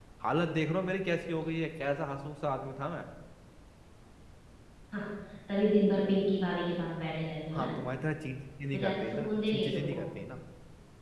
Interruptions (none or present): present